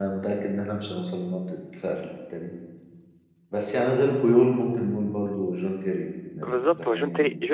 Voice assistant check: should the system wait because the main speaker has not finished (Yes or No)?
No